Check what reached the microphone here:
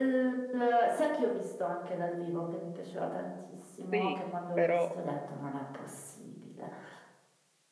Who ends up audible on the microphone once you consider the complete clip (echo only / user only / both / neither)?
both